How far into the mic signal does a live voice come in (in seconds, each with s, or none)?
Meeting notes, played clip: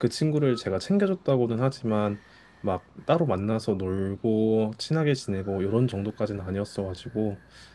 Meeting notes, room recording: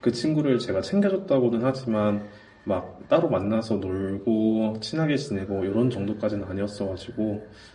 none